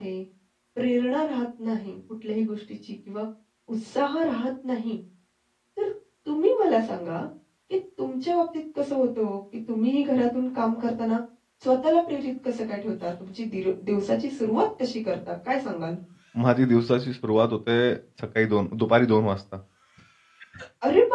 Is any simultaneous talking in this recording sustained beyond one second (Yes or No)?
No